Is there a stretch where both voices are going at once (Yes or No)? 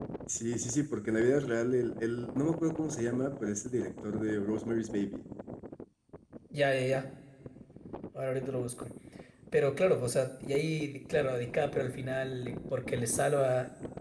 No